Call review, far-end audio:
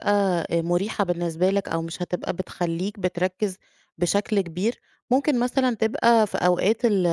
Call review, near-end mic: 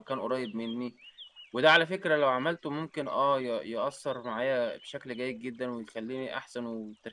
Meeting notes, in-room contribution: present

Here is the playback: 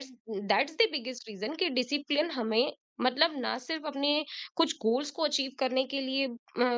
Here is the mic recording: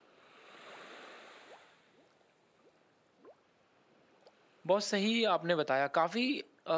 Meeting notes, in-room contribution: present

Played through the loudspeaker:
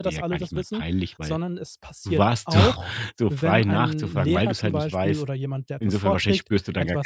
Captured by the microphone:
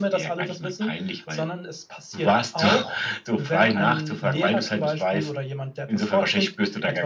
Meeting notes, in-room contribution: none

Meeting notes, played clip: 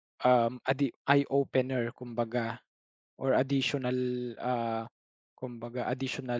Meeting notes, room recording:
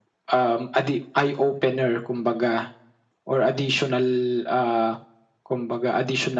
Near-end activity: none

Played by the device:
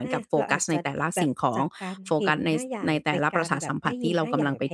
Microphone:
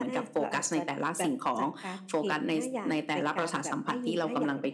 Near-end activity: none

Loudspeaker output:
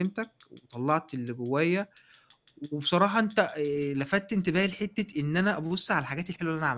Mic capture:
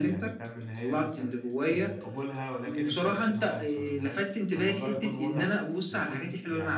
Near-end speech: present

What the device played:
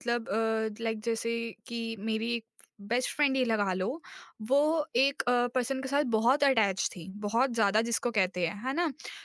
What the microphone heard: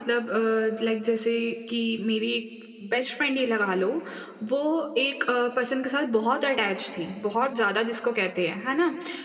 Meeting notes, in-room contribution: none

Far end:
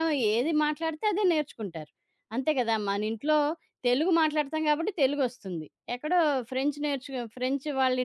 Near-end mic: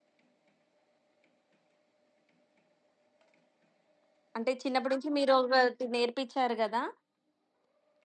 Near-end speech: present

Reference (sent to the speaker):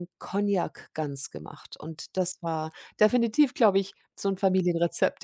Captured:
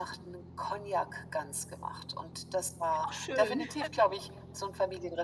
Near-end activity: present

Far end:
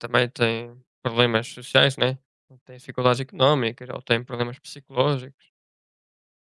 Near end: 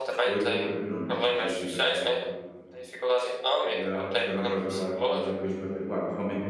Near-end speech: present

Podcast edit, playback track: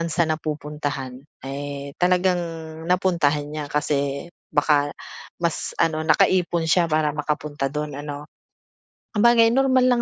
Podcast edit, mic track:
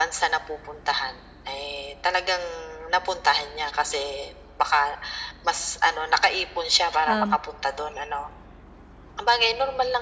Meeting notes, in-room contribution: present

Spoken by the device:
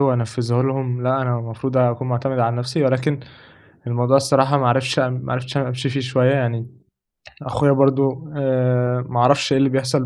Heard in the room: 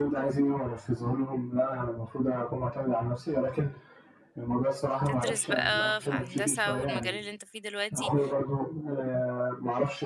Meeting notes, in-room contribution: present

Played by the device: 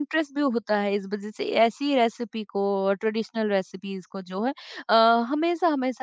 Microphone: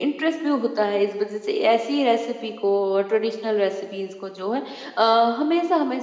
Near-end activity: none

